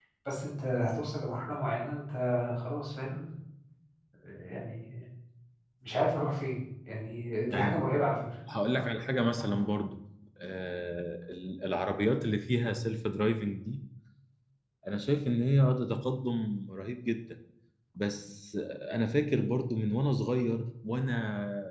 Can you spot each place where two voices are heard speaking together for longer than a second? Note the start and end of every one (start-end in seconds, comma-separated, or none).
none